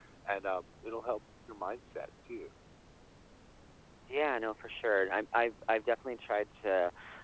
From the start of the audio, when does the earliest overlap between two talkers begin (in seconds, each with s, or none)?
none